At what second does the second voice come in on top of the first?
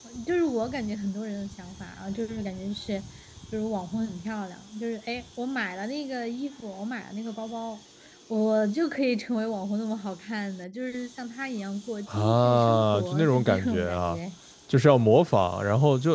12.1 s

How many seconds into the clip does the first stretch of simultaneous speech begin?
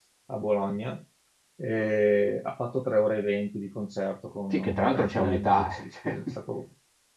4.5 s

